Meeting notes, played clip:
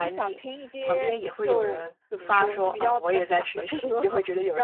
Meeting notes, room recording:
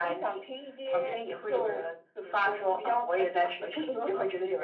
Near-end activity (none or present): none